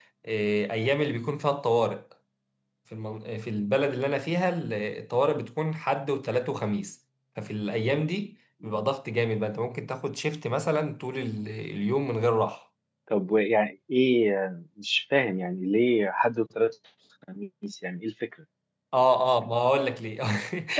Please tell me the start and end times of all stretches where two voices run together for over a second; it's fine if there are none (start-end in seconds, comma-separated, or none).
none